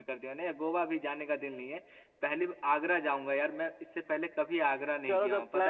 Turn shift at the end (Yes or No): Yes